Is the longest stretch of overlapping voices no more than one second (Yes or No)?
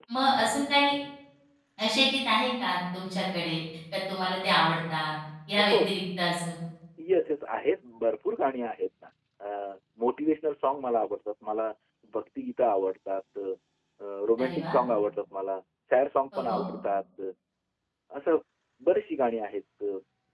Yes